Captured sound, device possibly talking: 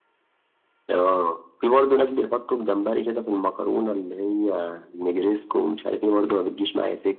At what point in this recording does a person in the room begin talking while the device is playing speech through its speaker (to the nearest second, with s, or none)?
none